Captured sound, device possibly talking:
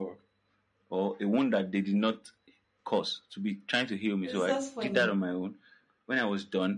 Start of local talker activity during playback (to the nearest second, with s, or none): 4 s